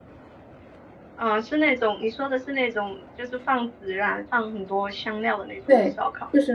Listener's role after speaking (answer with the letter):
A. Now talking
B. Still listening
A